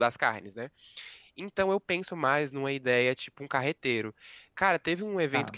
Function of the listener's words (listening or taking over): listening